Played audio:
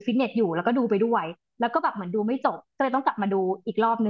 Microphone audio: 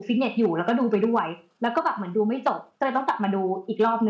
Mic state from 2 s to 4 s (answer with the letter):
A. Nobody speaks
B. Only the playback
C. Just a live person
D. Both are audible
B